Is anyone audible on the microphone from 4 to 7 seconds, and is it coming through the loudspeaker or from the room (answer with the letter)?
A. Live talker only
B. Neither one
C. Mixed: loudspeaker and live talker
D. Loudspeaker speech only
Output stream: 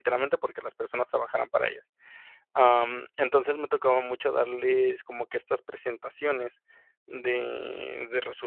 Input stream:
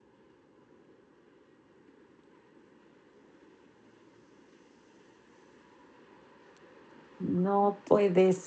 B